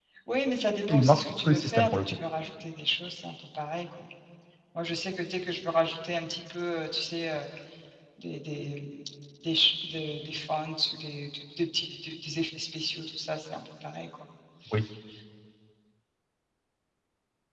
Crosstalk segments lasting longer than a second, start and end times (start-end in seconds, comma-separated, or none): 0.9-2.2